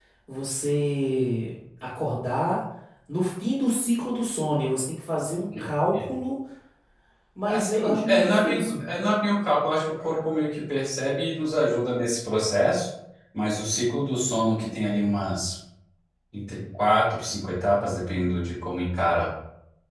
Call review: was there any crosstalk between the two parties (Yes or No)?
Yes